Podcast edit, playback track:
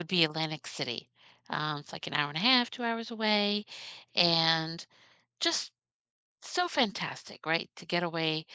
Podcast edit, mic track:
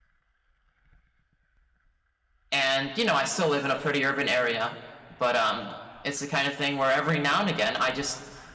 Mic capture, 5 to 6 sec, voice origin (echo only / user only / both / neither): user only